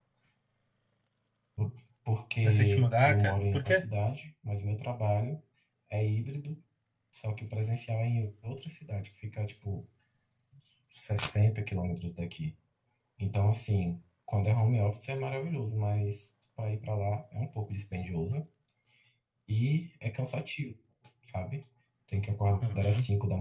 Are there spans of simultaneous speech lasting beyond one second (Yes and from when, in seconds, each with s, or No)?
Yes, from 2.4 s